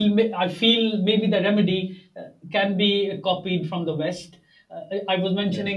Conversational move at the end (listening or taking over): listening